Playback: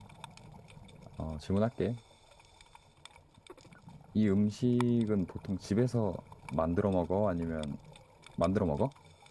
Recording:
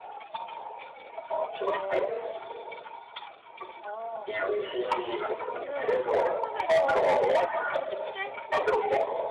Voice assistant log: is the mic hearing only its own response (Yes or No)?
No